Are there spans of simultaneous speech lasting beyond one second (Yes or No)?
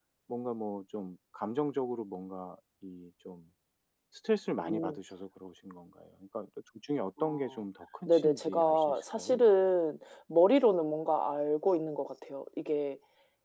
Yes